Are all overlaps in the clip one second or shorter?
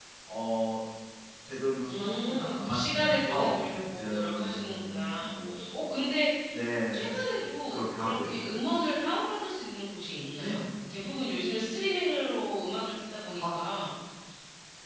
No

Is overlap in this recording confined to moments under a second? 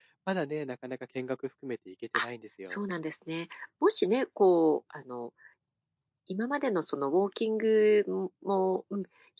Yes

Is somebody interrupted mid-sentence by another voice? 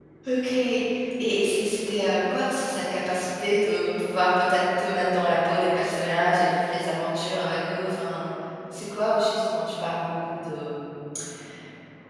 No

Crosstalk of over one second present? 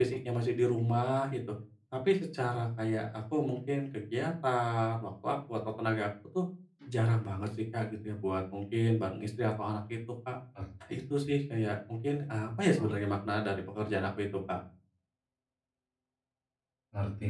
No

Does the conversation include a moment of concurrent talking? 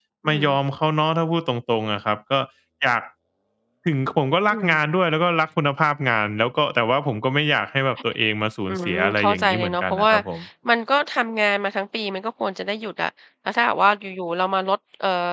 Yes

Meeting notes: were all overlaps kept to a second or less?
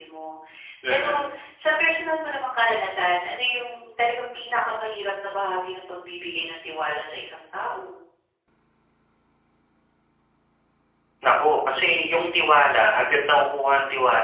Yes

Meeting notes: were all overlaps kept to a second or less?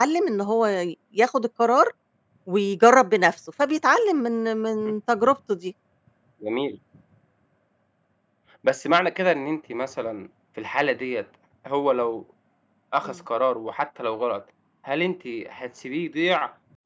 Yes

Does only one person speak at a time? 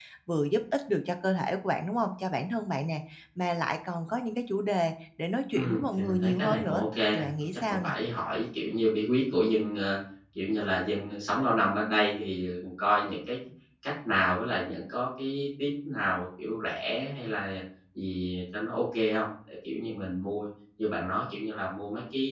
No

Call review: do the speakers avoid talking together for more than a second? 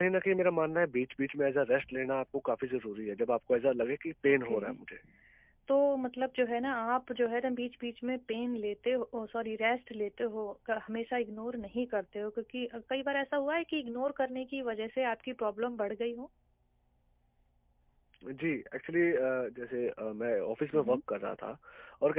Yes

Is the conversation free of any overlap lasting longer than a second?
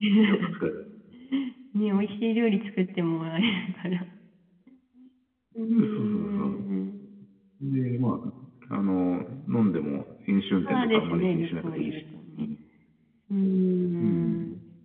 No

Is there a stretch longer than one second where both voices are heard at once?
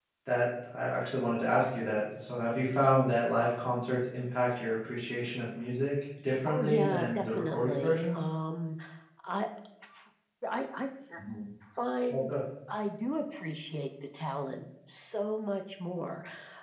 Yes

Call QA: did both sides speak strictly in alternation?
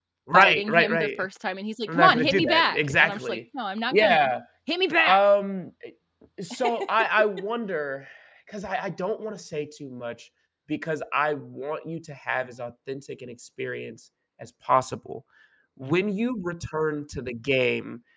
No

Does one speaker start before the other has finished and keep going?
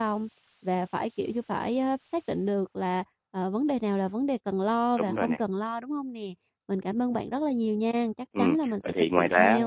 Yes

